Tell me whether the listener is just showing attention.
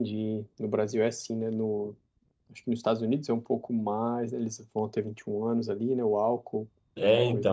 No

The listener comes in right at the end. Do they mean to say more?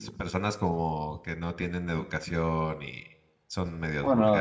Yes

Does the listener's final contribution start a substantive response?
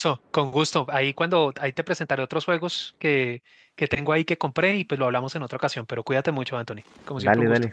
Yes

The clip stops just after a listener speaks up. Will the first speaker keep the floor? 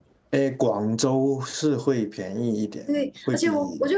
No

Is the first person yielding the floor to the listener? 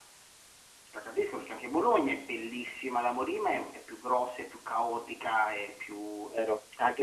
Yes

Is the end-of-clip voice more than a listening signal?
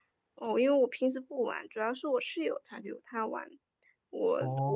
No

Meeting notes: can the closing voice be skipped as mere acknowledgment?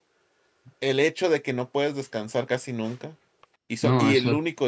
Yes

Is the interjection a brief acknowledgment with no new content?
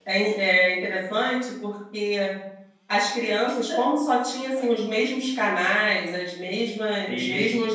Yes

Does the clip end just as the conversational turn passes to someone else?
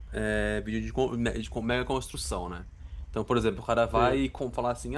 No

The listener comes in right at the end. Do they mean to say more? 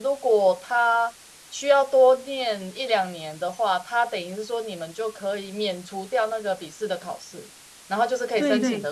No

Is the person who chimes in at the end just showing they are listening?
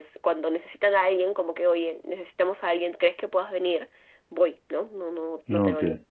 Yes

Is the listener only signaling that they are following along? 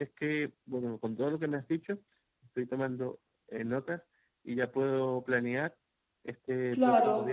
Yes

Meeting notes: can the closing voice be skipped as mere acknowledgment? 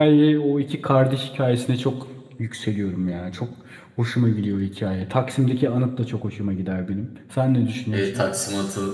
No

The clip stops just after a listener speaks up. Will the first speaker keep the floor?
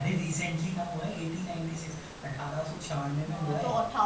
No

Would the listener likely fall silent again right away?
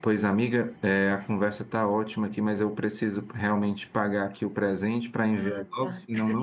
Yes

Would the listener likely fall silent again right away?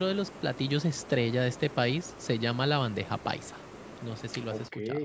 No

